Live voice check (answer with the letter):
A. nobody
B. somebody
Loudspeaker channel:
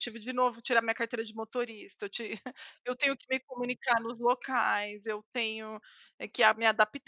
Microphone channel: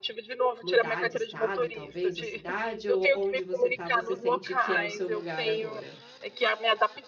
B